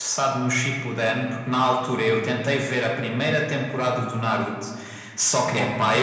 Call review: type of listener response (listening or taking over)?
listening